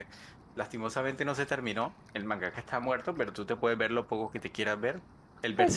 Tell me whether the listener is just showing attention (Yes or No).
Yes